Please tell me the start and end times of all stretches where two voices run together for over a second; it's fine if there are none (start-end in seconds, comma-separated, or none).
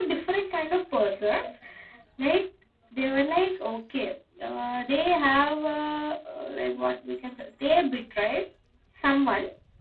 none